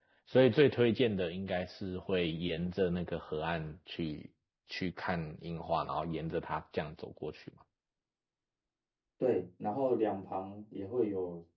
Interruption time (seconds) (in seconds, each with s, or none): none